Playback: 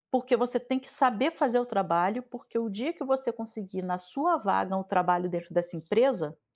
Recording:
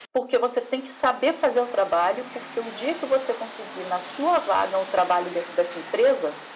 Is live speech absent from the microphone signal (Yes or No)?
Yes